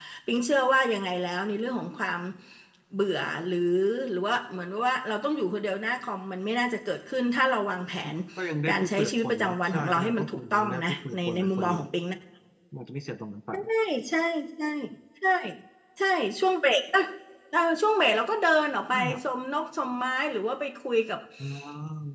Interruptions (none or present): present